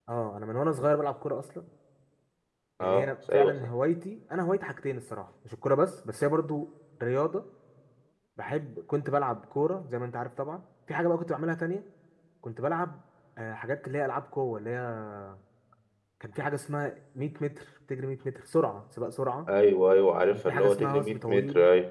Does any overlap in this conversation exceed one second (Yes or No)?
Yes